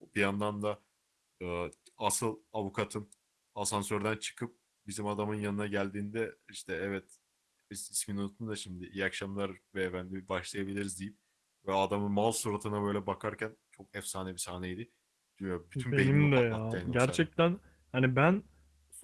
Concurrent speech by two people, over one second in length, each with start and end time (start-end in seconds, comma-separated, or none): 15.8-17.2